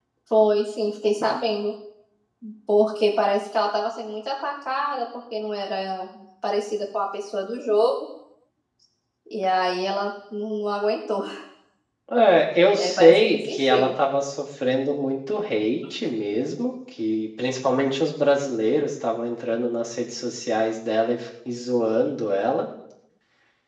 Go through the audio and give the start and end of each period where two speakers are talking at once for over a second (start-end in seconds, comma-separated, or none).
12.7-13.9